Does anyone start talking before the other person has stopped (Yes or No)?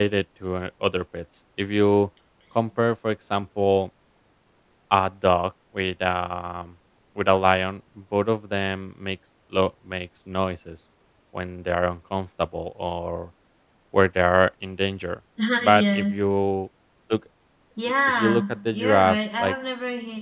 Yes